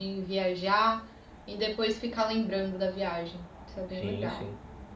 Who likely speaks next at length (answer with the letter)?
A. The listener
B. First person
A